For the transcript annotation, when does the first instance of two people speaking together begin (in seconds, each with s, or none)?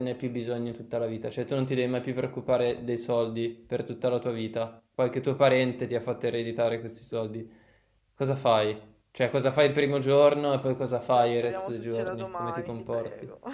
11.1 s